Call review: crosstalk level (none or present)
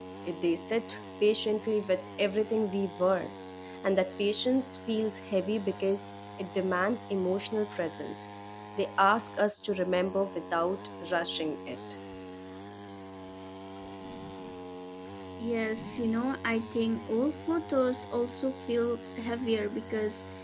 none